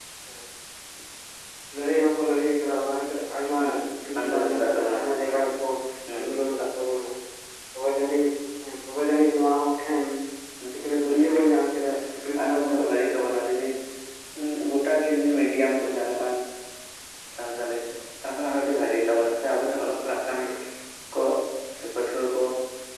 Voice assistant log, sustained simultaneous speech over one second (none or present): present